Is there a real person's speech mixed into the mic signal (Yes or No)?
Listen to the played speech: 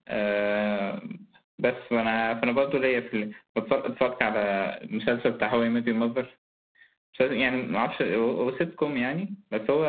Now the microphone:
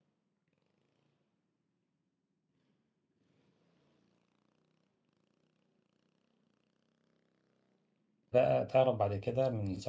Yes